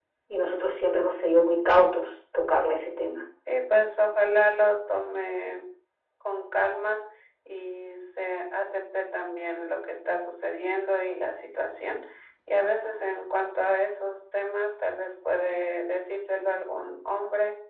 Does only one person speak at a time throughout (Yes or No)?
Yes